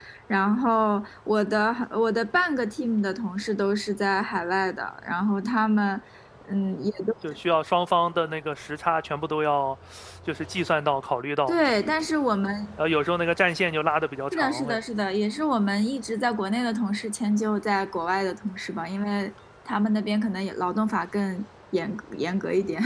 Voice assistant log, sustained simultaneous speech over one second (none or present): none